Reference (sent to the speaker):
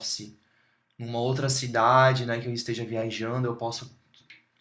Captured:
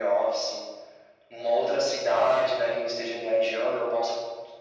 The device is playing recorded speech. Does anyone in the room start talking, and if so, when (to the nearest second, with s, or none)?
none